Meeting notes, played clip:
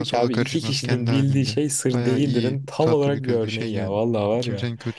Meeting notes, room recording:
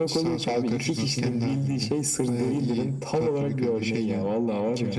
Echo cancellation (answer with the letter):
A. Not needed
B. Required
B